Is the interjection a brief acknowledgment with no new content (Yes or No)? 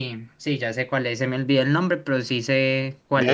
No